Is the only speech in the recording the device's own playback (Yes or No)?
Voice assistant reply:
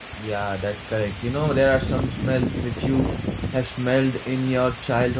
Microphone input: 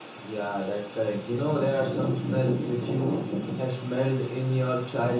Yes